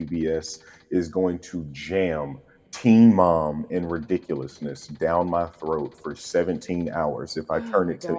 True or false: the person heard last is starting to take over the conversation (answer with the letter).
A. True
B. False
A